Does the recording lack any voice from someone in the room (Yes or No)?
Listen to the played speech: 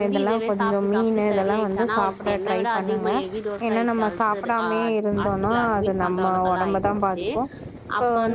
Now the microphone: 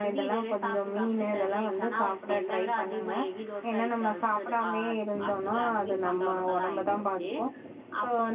Yes